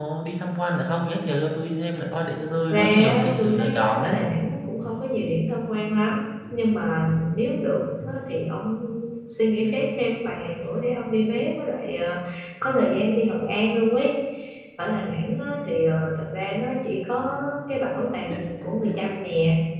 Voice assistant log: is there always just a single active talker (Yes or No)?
No